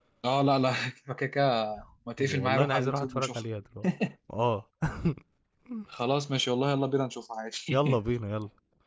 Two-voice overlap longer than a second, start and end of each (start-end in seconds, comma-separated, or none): 2.2-3.4